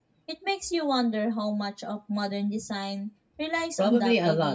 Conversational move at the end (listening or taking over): taking over